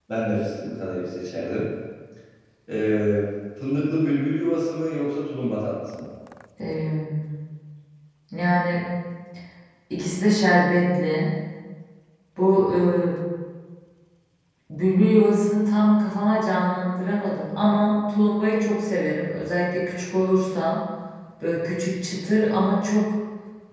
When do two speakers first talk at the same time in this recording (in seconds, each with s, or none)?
none